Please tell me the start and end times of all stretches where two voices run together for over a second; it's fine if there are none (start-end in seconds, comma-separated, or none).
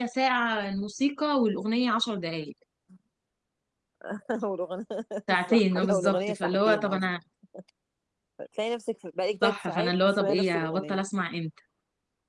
5.5-7.0, 9.4-11.0